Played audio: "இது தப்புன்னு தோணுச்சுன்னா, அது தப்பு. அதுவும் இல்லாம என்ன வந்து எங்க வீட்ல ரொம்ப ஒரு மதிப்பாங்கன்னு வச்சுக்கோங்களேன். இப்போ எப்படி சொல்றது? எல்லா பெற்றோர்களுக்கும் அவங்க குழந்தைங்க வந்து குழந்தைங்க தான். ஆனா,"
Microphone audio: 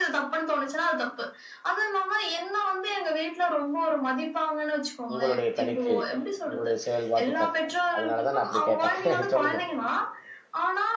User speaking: Yes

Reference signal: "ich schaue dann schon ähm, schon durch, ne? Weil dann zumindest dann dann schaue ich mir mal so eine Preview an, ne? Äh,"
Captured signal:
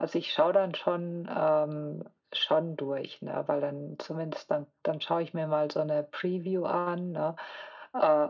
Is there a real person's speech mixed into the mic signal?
No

